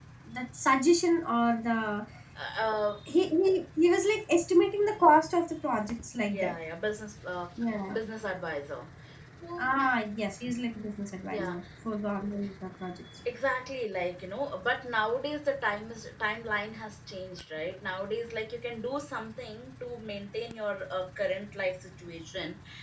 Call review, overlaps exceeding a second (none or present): none